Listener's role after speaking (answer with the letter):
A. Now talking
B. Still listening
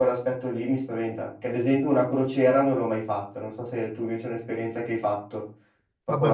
A